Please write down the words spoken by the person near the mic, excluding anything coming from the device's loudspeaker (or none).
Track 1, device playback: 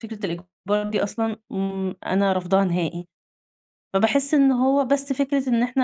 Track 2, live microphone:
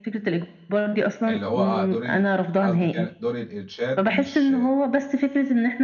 اللي هو آه، دور ال قصدِك يعني دور الإرشاد مش